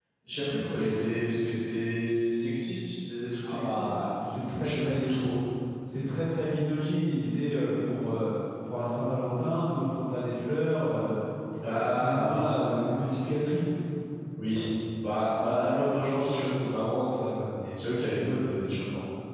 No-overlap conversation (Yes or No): No